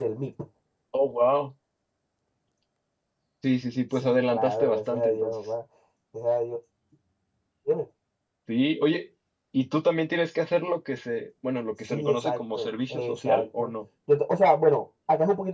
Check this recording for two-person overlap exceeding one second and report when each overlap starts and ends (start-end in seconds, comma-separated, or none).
4.0-5.3, 11.9-13.7